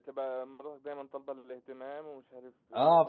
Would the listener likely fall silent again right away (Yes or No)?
No